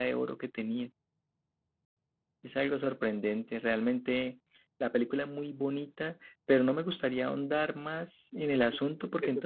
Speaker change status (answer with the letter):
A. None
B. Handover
B